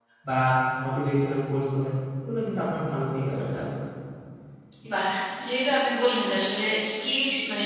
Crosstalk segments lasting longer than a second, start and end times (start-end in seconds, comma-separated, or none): none